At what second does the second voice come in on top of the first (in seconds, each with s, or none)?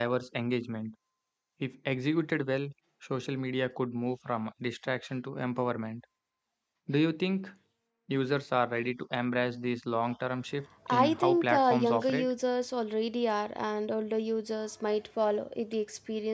10.9 s